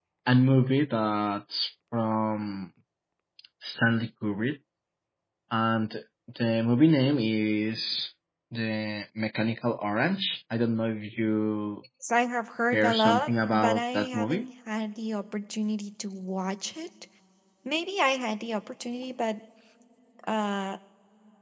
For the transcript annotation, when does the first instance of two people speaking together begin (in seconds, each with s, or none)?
12.7 s